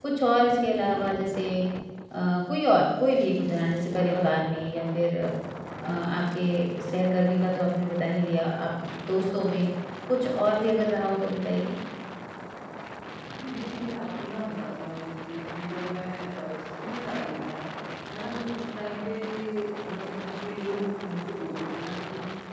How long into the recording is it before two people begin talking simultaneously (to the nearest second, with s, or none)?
none